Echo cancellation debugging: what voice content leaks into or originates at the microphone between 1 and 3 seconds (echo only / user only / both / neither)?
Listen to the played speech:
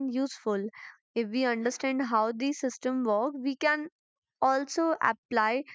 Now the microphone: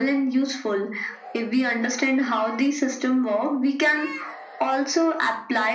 echo only